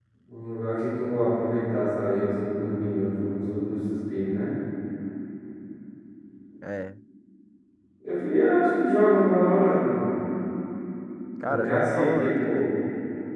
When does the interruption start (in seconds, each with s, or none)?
11.4 s